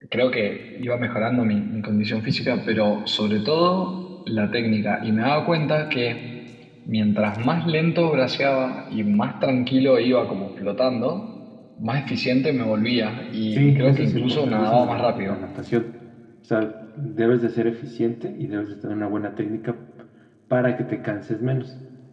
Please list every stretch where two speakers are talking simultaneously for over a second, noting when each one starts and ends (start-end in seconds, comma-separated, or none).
13.5-15.4